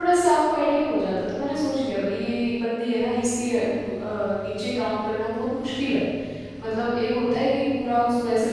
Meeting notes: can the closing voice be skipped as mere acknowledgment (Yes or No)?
Yes